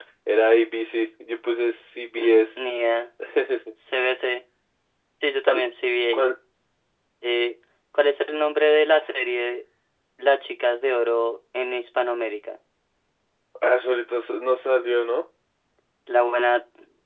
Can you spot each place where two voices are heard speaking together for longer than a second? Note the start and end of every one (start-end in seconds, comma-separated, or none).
none